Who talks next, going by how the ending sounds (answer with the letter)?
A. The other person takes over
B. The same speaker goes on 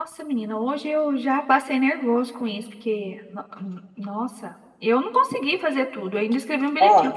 B